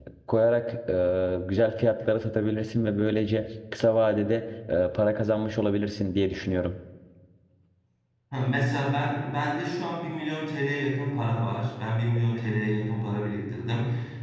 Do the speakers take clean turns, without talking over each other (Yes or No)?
Yes